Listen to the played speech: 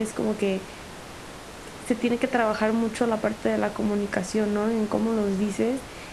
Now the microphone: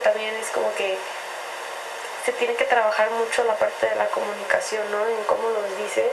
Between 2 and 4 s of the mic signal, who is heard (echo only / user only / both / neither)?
echo only